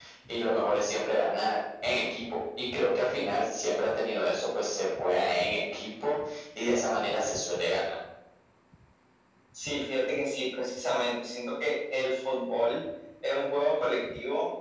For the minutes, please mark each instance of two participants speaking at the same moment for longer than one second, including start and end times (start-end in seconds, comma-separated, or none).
none